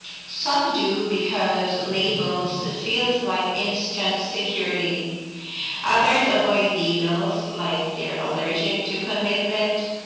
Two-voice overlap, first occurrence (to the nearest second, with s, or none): none